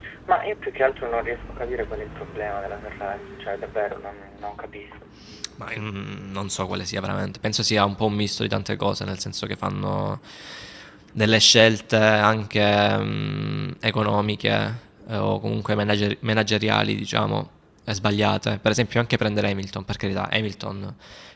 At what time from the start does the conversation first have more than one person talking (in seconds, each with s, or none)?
none